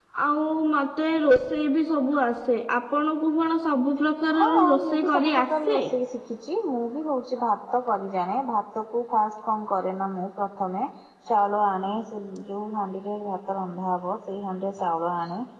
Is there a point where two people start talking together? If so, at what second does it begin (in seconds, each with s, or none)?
4.3 s